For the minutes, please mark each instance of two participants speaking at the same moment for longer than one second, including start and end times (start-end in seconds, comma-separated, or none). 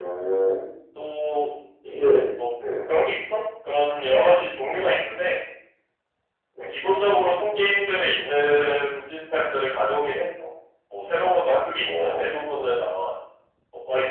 none